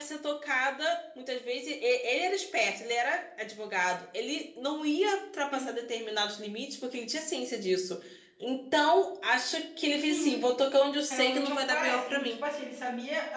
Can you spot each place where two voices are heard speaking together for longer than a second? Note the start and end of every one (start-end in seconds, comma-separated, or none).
11.1-12.3